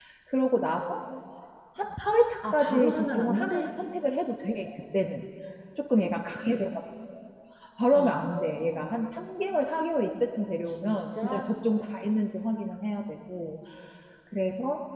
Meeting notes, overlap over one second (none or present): present